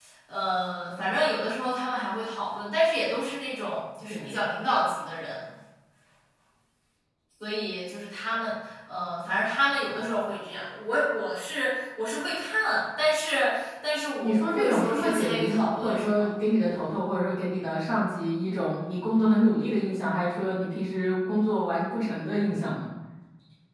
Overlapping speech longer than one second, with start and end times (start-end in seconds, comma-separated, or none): 14.2-16.3